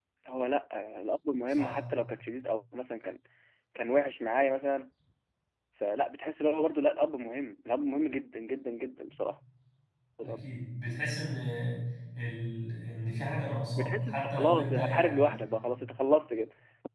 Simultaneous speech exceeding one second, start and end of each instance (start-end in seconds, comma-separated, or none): 13.8-15.3